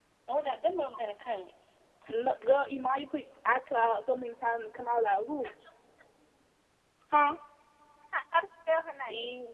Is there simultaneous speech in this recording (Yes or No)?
No